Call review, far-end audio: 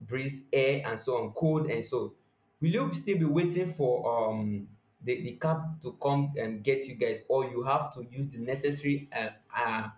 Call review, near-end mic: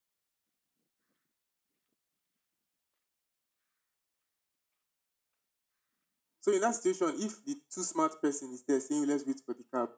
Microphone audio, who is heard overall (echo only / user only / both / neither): user only